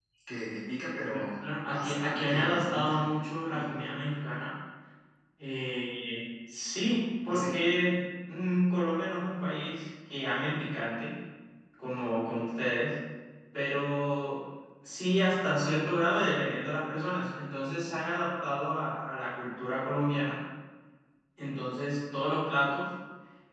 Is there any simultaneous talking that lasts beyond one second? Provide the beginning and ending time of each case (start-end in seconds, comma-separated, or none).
1.6-3.0